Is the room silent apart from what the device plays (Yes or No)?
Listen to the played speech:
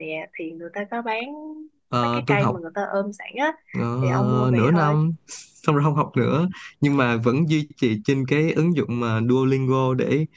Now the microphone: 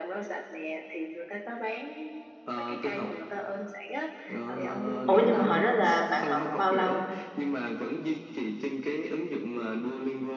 No